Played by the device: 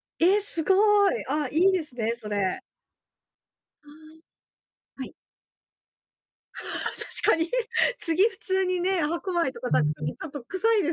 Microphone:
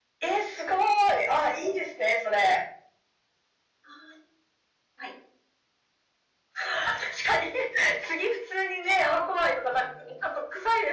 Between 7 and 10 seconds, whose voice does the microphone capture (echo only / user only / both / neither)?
echo only